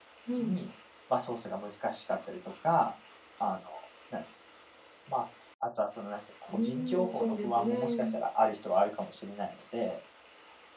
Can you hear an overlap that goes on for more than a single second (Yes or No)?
Yes